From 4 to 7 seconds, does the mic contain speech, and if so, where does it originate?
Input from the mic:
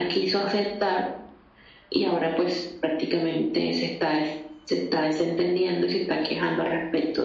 echo only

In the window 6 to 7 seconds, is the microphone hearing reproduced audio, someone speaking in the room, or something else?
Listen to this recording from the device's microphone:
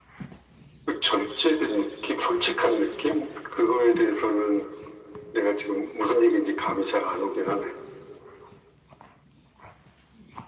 echo only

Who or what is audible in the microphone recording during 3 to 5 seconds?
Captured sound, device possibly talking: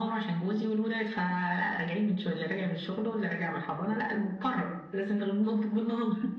echo only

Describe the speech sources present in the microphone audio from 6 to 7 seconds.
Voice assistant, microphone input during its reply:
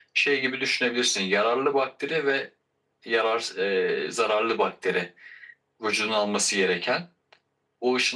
echo only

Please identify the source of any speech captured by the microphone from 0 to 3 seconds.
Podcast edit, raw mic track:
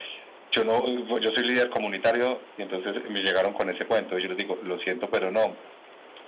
echo only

